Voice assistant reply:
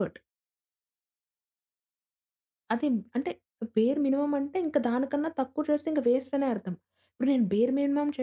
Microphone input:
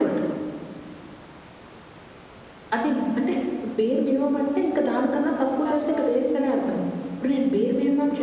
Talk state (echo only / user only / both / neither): both